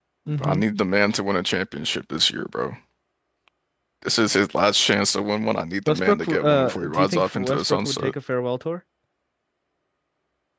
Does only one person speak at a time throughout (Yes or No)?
No